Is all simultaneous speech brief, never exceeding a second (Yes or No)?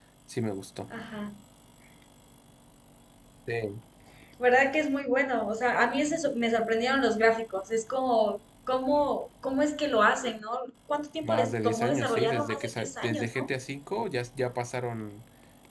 No